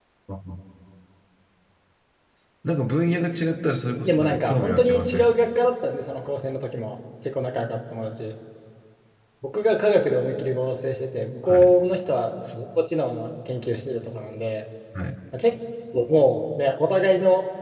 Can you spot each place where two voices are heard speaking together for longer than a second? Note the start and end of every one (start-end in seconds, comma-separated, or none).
4.0-5.3